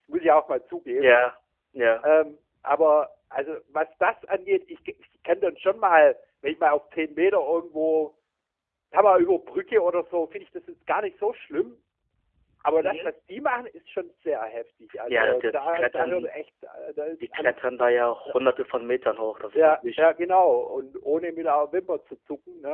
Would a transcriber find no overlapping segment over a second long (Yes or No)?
No